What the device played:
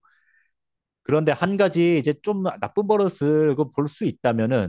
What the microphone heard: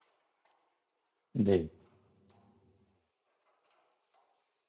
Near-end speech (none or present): present